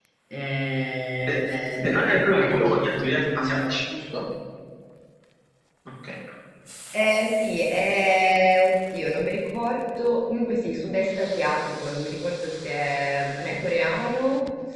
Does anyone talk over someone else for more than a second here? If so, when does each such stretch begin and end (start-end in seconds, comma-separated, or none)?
1.8-3.7